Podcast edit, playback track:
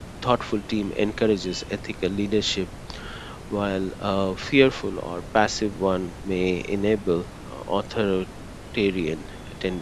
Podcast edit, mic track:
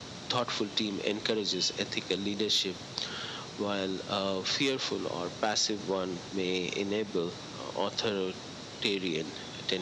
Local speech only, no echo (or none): none